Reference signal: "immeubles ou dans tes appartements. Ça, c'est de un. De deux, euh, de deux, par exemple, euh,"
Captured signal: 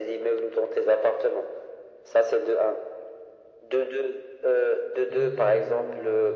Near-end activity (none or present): present